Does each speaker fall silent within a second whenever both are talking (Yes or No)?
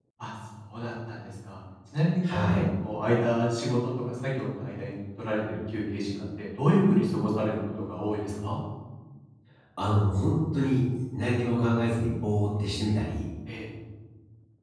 Yes